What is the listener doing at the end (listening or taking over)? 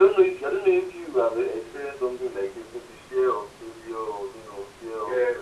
taking over